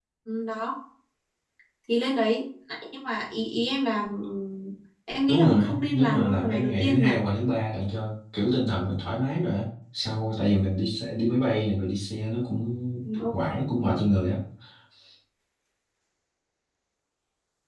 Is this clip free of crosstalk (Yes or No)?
No